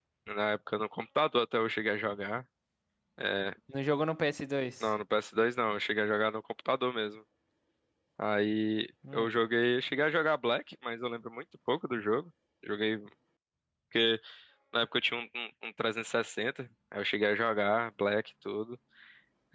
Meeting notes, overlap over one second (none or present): none